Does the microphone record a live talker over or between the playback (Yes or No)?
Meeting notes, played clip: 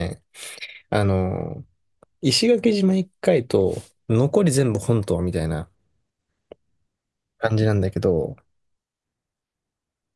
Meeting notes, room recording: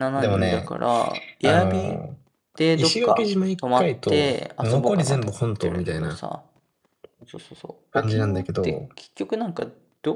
Yes